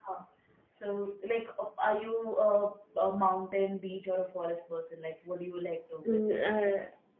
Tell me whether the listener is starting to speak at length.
Yes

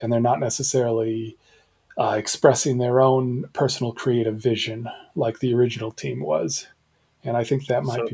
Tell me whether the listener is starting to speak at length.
No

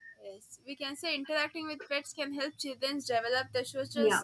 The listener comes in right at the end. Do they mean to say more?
No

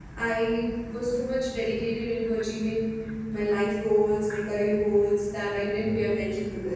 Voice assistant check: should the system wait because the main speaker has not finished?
Yes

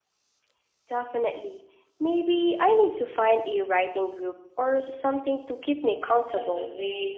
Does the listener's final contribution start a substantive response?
Yes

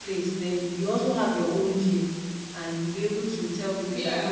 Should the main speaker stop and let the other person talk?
No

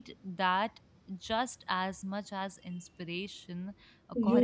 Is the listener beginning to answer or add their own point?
Yes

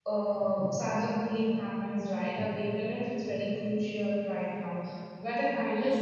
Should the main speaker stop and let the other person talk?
No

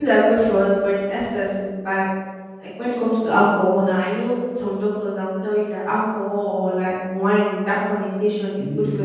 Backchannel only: Yes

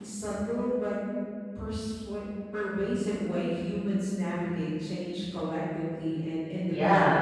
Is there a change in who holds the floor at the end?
Yes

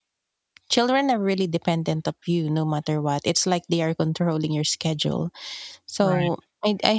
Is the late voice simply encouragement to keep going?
Yes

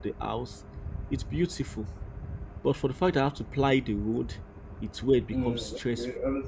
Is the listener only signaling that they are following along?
No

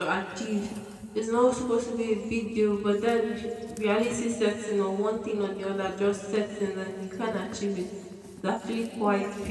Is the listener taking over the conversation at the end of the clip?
No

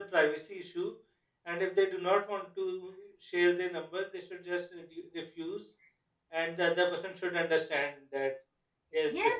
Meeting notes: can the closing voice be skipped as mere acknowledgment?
No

